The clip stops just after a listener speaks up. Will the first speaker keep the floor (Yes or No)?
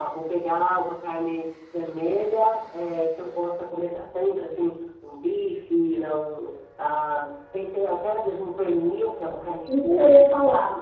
No